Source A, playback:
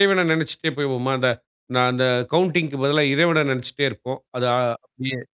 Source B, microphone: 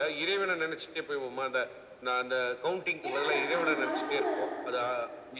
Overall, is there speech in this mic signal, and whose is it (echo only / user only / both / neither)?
both